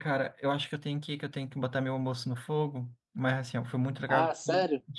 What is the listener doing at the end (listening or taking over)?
listening